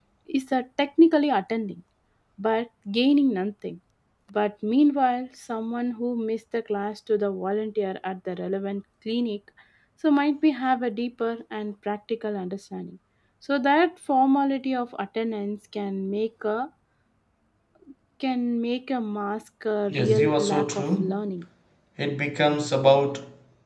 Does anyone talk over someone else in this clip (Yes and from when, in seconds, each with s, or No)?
Yes, from 19.9 s